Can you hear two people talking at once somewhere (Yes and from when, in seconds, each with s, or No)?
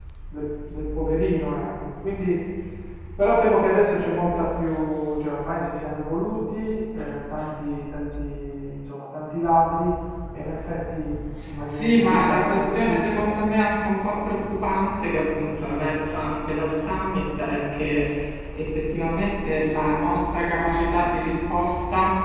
Yes, from 11.7 s